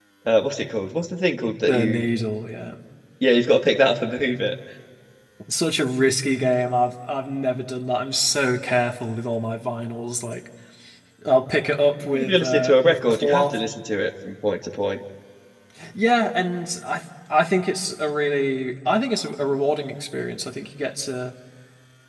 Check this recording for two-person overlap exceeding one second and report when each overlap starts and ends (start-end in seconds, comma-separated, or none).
12.1-13.6